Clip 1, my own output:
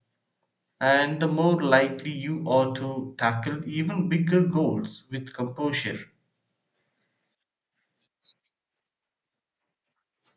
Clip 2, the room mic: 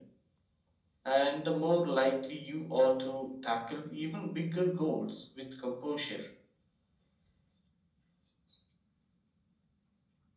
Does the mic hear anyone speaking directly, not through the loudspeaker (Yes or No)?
No